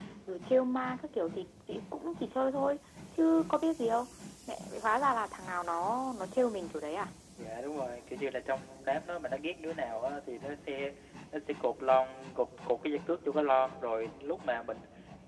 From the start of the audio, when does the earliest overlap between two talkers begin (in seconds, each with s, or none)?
none